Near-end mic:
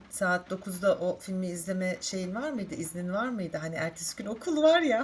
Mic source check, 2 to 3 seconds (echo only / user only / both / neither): user only